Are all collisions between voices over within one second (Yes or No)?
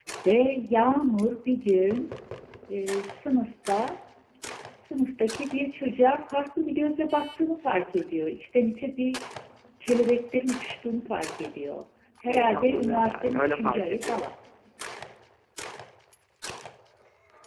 No